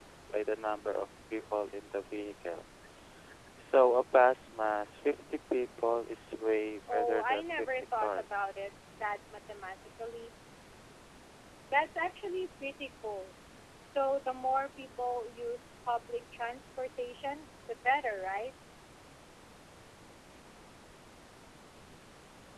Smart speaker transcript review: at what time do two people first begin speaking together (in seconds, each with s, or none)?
6.9 s